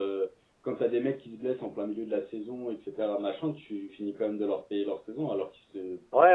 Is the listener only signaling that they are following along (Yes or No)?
No